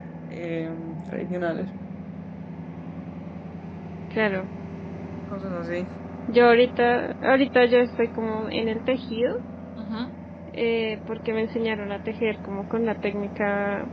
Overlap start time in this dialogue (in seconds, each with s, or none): none